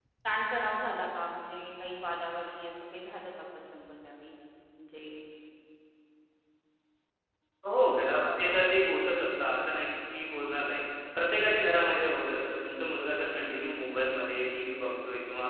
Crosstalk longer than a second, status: none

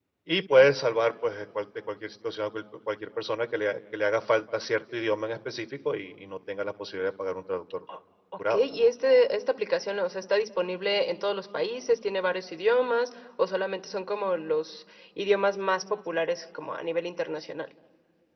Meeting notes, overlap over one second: none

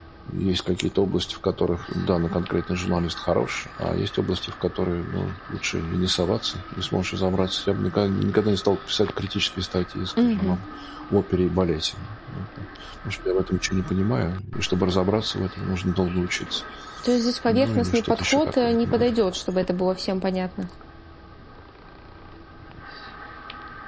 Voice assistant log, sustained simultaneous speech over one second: present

